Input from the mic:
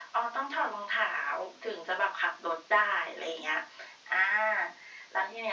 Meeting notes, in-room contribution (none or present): none